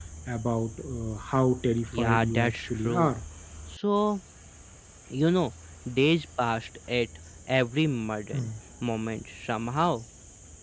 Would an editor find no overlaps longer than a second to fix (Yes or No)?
No